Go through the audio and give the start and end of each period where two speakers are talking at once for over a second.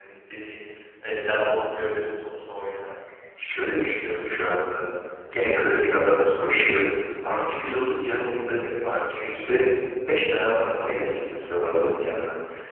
none

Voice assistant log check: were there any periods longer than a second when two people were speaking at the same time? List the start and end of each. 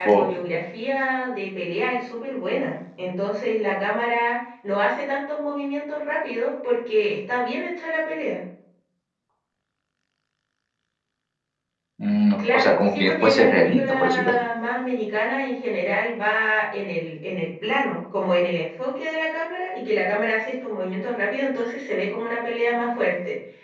12.4-14.3

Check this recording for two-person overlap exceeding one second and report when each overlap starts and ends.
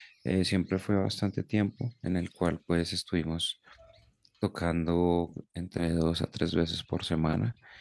none

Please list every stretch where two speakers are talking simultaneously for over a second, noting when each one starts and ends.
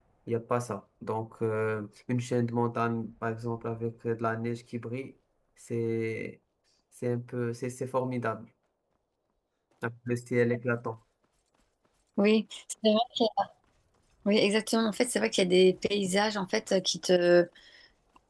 none

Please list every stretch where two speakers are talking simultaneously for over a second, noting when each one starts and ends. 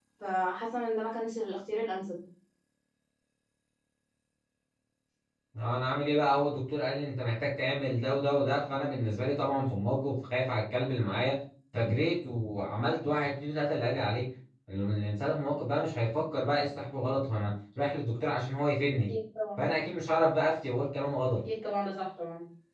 none

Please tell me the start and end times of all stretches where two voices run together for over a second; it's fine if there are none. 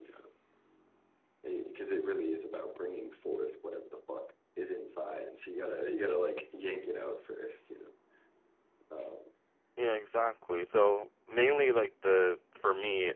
none

